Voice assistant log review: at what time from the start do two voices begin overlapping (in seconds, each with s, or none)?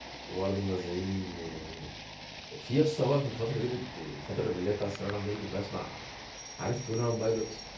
none